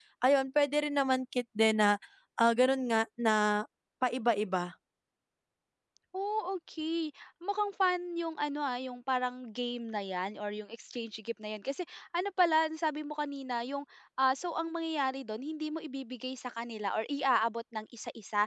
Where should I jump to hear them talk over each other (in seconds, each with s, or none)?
none